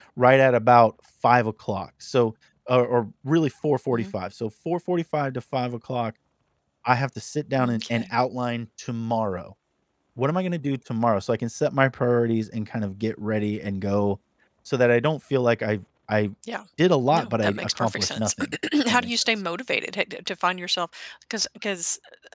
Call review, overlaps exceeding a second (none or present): present